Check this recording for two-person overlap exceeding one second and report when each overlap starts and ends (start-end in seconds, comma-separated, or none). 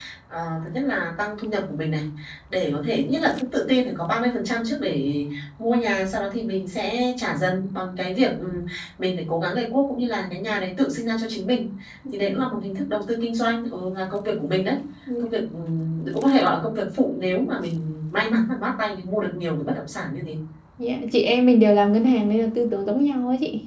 none